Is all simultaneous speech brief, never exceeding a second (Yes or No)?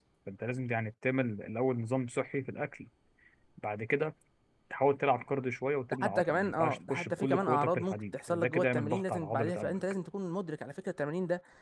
No